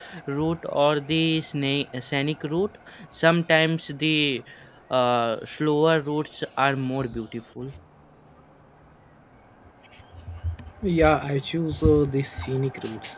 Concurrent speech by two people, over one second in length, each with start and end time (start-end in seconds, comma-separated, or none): none